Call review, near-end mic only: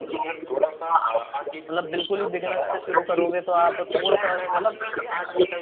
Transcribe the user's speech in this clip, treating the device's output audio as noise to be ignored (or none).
मतलब बिल्कुल ही बिगिनर से शुरू करोगे तो आप थोड़ा सा मतलब